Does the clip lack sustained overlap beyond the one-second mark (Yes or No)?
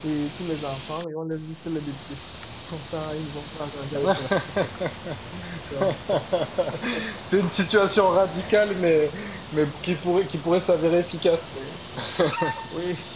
Yes